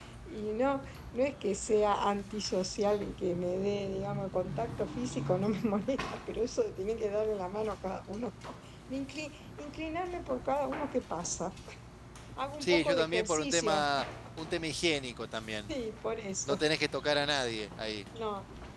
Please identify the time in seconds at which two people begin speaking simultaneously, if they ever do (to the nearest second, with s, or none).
13 s